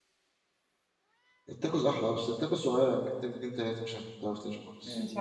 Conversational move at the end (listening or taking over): taking over